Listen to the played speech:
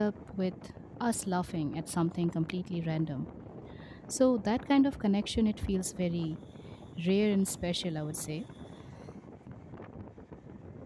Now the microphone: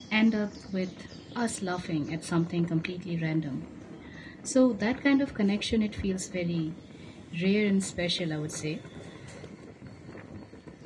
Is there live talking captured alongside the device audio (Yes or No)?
No